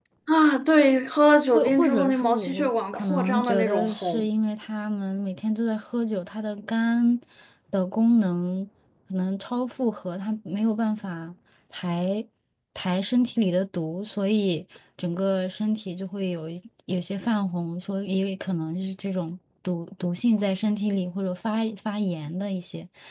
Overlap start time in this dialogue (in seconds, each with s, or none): 1.5 s